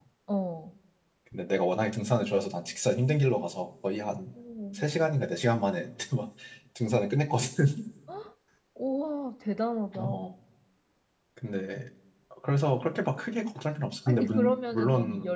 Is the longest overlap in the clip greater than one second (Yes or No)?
Yes